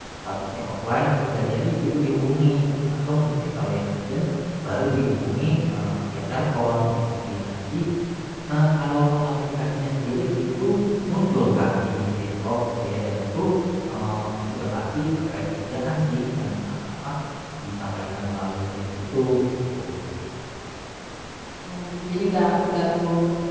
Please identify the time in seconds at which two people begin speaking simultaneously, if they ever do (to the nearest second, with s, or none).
none